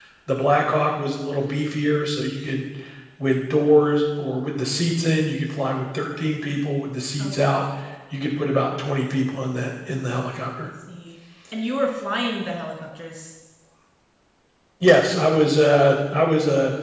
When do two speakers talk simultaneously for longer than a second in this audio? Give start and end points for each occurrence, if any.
none

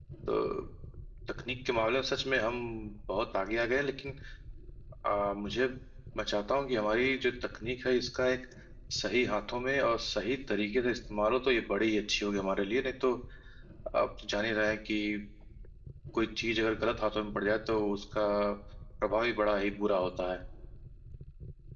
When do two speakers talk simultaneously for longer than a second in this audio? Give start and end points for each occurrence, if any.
none

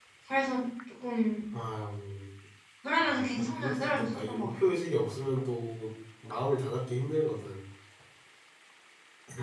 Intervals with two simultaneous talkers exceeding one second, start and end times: 3.0-4.5

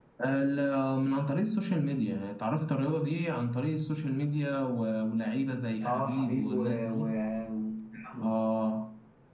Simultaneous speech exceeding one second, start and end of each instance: 5.8-7.0

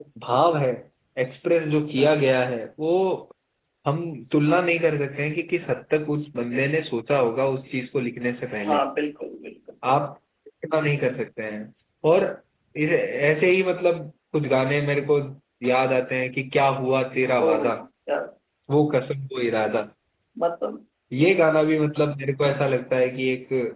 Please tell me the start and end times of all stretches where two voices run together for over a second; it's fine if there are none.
none

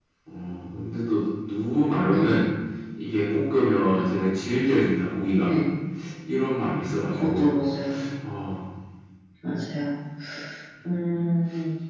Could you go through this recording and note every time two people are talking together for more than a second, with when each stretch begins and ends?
none

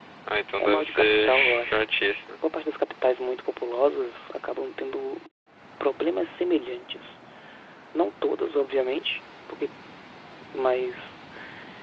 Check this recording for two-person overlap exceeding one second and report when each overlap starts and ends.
0.6-1.8

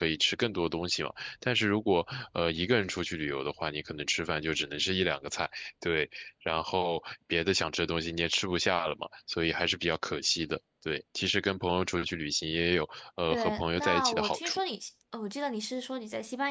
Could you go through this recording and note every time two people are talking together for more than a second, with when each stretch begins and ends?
13.3-14.6

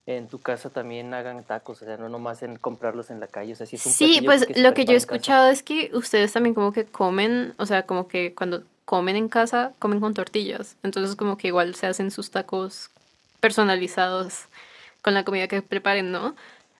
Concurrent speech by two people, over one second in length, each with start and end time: 3.8-5.3

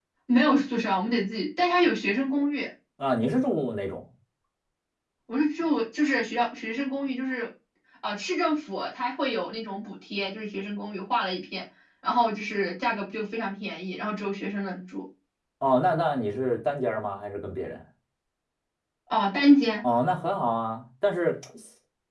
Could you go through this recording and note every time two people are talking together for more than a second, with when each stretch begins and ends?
none

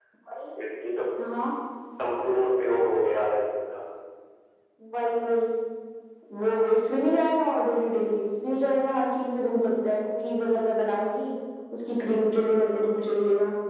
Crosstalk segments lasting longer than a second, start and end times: none

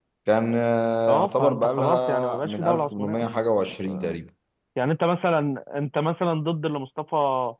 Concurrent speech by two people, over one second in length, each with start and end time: 1.1-3.2

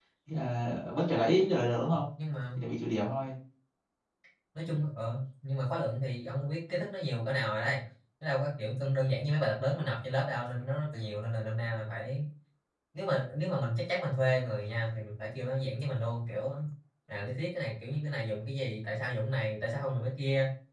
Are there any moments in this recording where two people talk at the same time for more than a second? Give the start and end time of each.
none

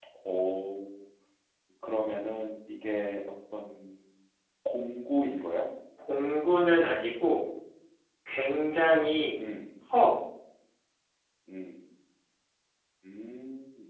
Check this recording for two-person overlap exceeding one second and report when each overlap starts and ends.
none

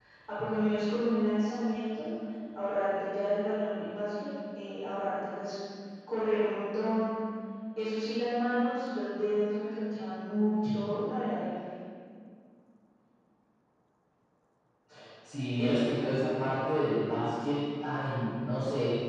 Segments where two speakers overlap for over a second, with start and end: none

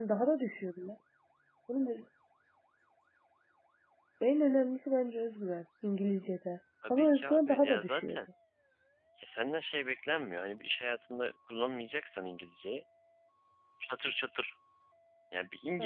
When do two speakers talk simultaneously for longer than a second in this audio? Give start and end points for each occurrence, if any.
6.9-8.2

